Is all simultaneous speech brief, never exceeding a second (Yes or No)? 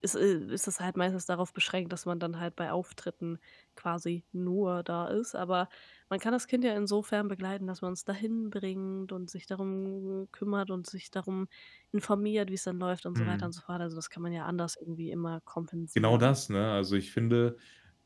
Yes